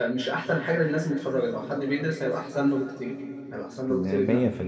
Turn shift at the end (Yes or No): Yes